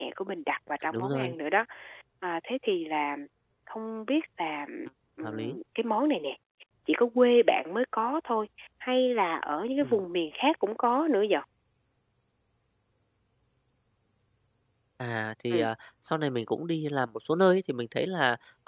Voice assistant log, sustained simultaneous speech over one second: none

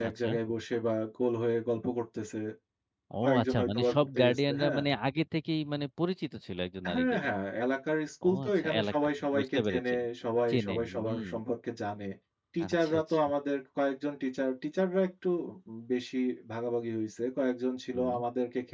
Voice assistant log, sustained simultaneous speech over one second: present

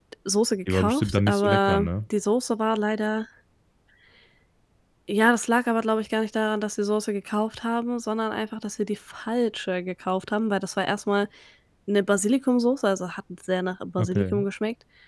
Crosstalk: present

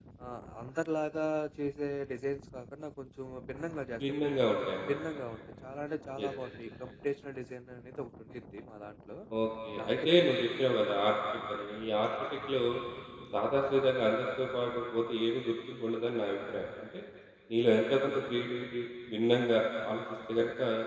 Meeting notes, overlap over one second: none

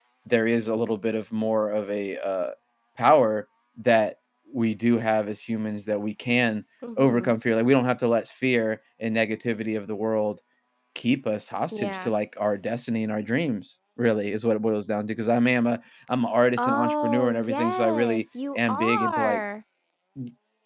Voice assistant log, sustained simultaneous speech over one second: present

